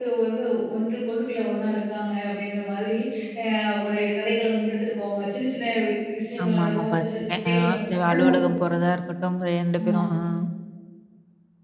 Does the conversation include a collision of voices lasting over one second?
Yes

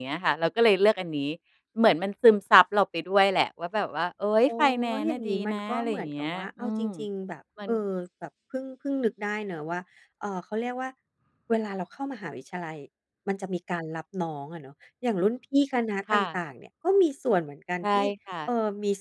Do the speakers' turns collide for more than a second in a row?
Yes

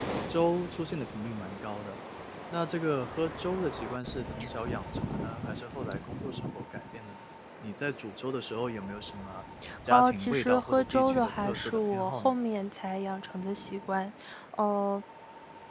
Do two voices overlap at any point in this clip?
Yes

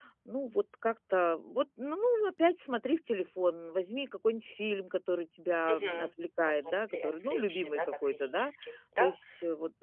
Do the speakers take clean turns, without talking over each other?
No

